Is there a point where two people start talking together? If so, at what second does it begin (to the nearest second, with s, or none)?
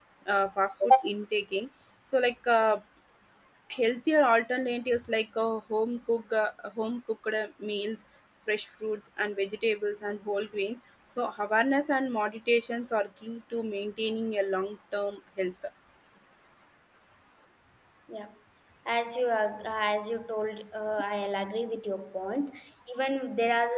none